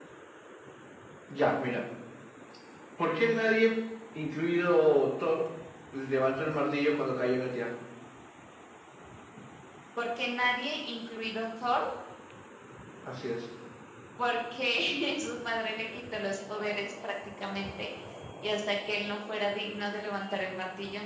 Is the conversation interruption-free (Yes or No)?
Yes